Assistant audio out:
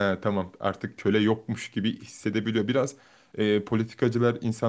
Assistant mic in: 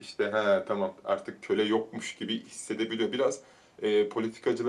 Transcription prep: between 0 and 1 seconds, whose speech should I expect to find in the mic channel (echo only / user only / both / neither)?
echo only